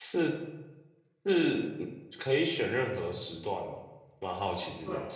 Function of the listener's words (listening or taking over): taking over